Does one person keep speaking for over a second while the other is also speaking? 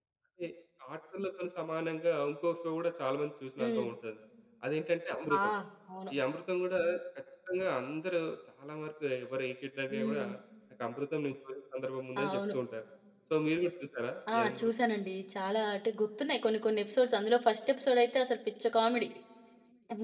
No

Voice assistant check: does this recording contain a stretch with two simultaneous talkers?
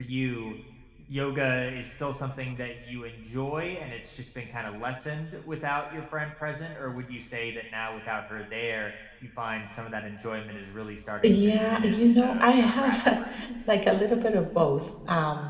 Yes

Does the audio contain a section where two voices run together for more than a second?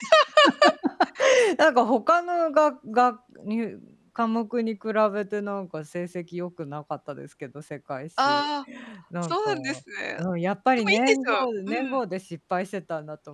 Yes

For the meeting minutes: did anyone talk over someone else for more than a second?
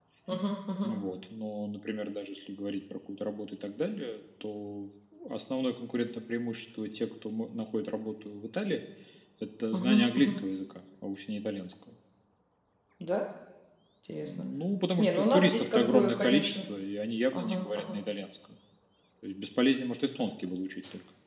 Yes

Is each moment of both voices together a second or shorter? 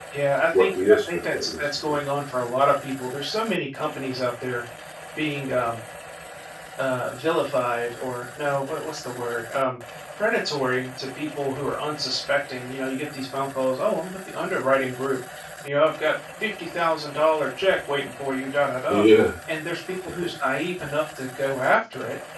No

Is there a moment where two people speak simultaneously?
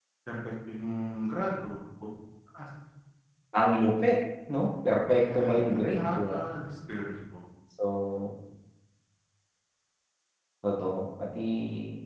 Yes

